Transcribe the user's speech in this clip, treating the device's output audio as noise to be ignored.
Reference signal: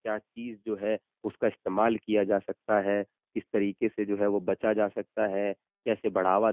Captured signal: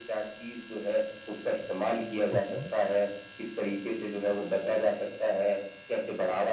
हुँ, हुँ।

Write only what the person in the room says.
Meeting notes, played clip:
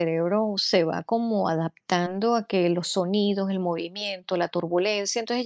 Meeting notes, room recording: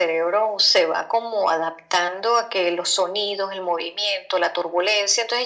none

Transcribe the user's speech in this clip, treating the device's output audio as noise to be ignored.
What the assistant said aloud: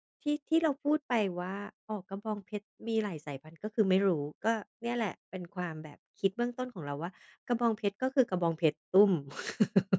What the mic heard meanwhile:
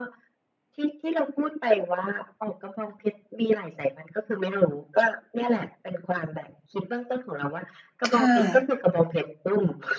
ค่ะ

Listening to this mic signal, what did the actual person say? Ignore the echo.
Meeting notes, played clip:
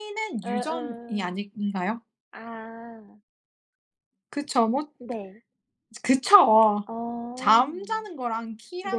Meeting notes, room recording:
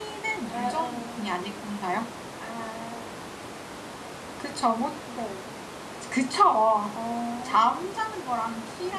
none

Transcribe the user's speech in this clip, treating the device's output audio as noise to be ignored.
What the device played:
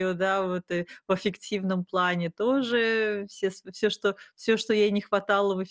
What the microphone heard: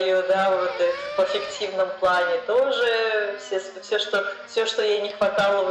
none

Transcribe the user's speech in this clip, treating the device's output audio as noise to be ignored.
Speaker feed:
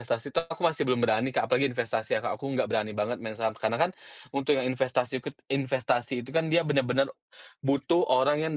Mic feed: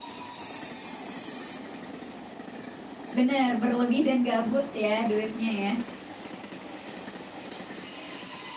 Bener, berlebih dan gabut ya, duitnya ya.

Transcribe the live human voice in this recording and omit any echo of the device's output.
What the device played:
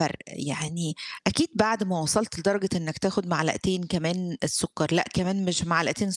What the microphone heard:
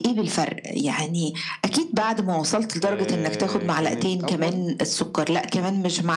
آآ كان الأول

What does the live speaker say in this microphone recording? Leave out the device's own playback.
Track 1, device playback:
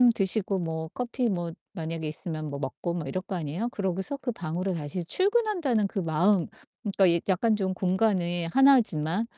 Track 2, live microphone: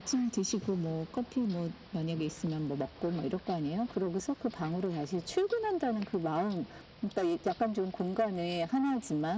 none

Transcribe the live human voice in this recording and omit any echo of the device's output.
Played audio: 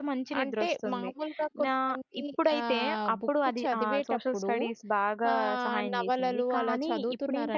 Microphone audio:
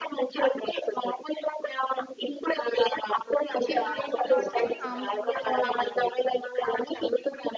ఇతిహాసాలు అంటే సాంస్కృతిక

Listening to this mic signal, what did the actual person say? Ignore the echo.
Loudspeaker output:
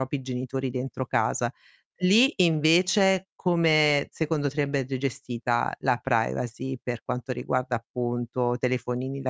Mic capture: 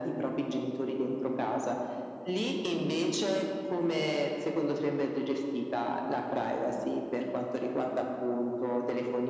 none

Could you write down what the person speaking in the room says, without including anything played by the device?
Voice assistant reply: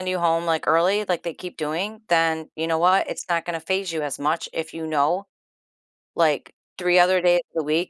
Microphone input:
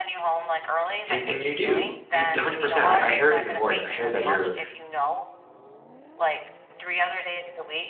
And and you do. You 100%, I I hear it in your voice, I hear that you're

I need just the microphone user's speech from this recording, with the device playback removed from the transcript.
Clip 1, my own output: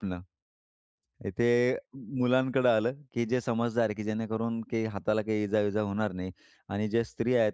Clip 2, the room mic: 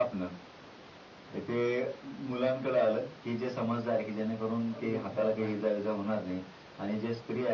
तॉरिब बरोबर आहे अगदी.

